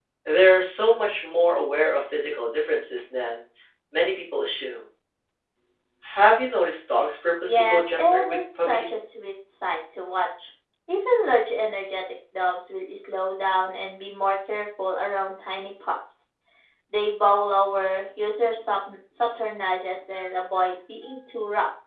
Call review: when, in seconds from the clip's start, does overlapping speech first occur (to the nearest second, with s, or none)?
7 s